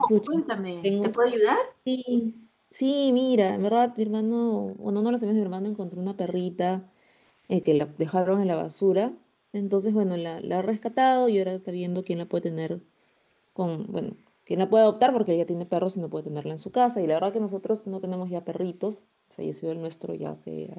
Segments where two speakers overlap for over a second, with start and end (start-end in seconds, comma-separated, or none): none